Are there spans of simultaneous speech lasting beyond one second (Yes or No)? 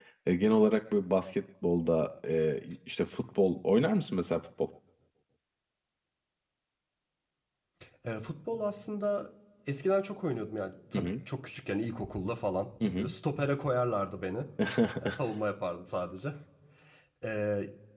No